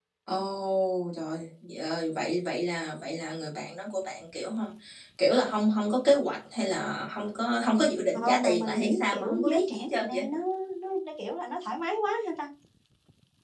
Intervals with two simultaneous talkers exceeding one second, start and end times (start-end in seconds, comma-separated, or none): 8.1-10.2